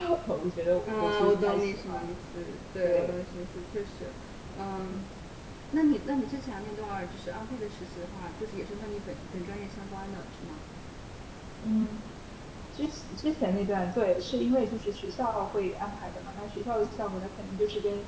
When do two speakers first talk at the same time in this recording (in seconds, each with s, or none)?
0.9 s